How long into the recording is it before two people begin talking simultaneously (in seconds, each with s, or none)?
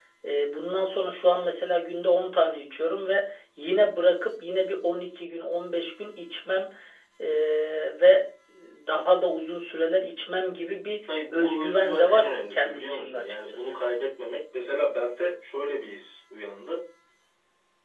11.0 s